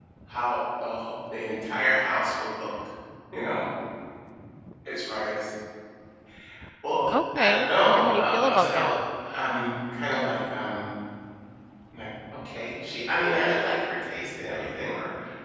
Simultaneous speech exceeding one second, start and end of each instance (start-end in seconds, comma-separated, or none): 7.1-9.0